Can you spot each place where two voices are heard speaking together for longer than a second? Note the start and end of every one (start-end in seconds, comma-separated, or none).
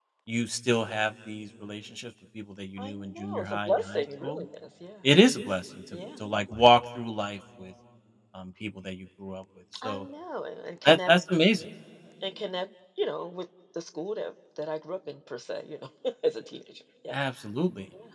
2.8-4.4